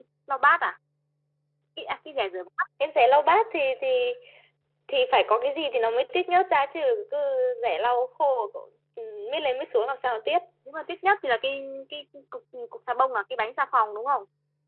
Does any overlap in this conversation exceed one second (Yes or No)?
No